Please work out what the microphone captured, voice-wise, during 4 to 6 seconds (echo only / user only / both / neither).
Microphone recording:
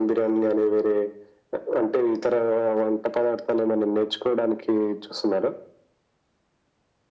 echo only